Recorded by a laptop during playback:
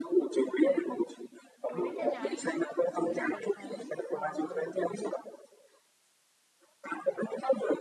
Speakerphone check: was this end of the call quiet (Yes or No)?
No